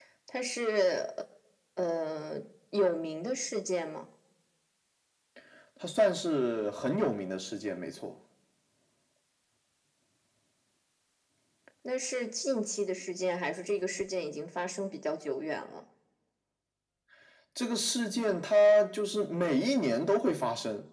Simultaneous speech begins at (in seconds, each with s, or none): none